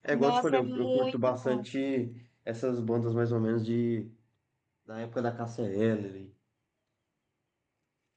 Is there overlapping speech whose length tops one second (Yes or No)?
Yes